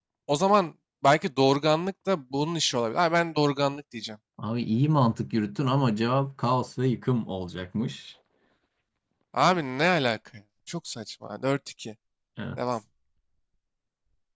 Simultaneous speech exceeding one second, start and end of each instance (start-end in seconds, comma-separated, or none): none